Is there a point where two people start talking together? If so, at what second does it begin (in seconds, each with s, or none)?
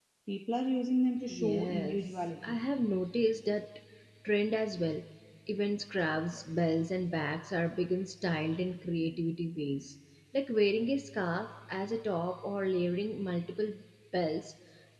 1.3 s